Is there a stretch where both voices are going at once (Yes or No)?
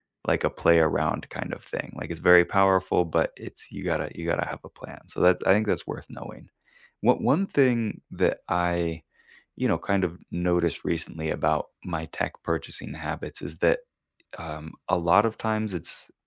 No